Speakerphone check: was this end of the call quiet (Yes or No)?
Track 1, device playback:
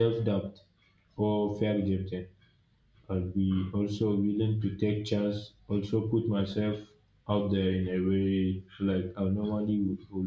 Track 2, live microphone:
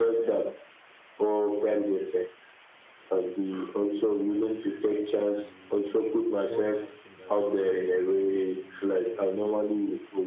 No